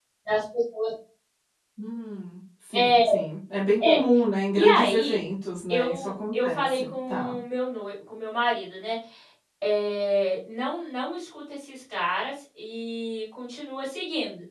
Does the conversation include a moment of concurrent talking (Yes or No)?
Yes